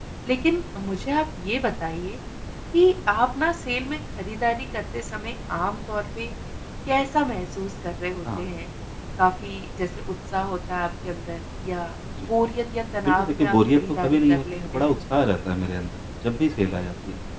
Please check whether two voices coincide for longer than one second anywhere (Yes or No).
Yes